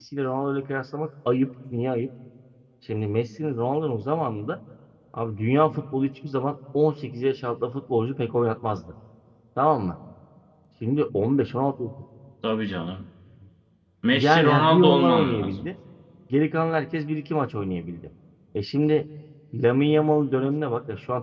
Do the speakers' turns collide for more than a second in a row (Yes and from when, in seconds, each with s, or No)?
Yes, from 14.1 s